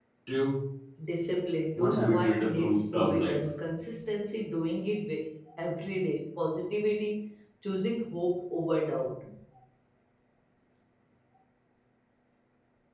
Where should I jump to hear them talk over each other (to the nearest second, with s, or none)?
2 s